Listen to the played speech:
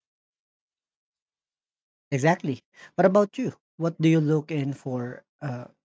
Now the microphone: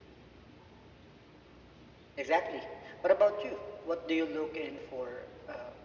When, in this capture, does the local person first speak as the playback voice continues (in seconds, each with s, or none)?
none